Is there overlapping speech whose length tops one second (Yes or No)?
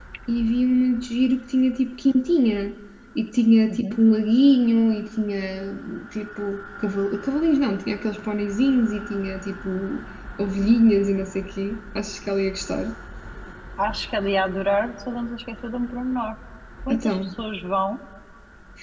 No